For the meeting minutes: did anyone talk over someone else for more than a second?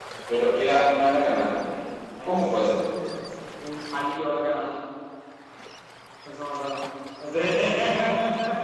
No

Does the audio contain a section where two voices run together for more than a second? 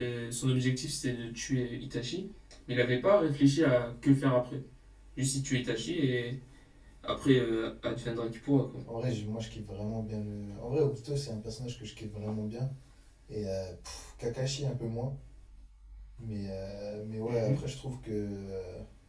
No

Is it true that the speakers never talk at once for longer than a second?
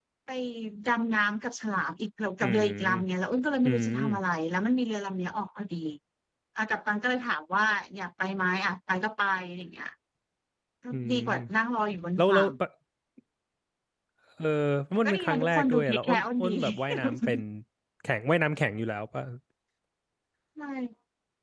No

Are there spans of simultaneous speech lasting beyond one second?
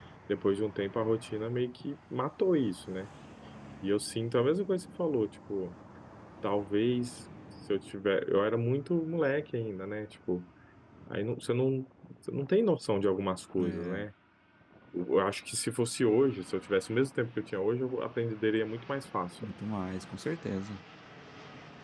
No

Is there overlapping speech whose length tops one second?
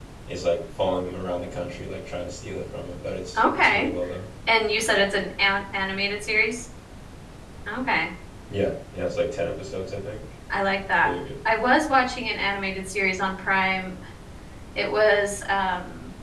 No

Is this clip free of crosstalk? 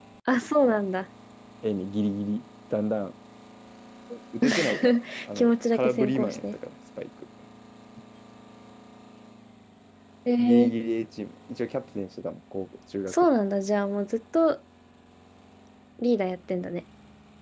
No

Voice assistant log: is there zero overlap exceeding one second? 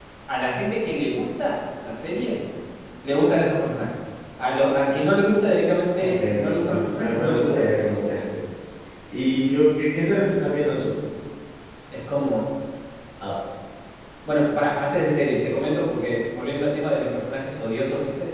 No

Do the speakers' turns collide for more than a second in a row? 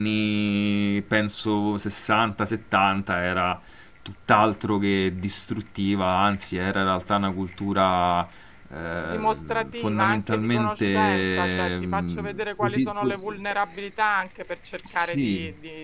Yes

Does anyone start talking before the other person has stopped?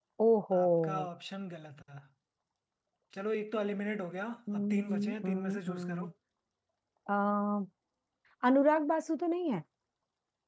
Yes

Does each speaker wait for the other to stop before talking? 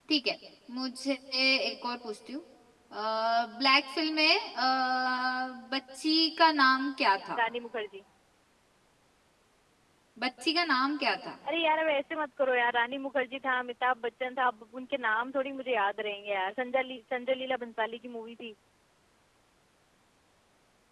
Yes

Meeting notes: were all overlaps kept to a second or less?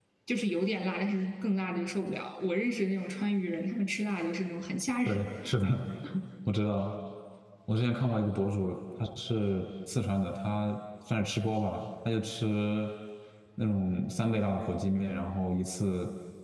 Yes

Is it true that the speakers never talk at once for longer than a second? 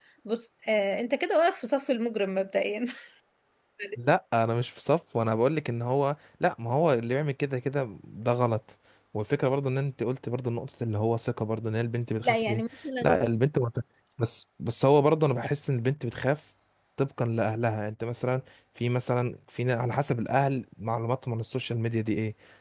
Yes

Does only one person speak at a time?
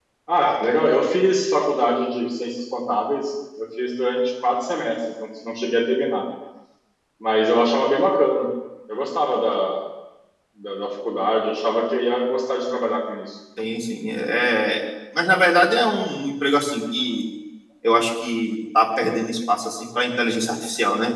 Yes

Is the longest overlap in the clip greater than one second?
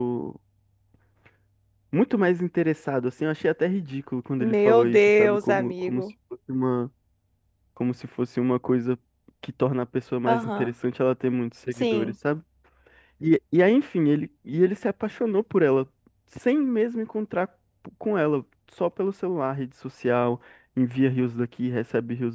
Yes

